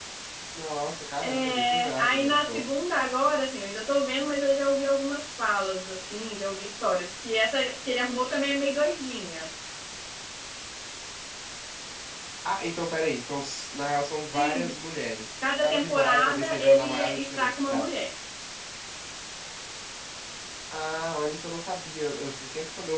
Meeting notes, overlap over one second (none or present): present